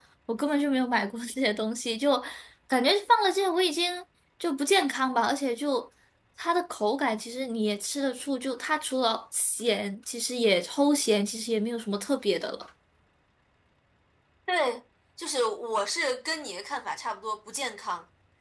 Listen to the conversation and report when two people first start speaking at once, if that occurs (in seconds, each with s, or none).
none